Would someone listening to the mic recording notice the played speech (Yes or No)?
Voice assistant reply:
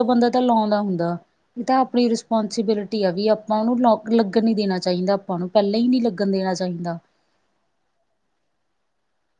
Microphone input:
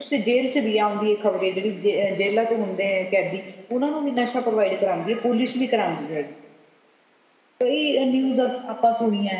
No